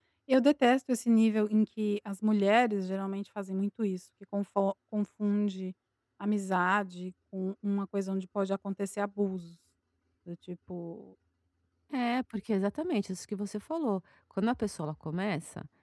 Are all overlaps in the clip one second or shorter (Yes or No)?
Yes